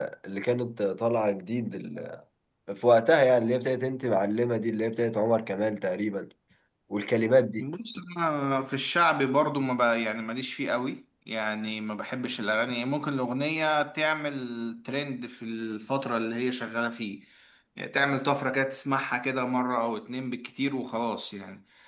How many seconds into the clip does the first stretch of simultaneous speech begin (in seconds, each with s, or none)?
none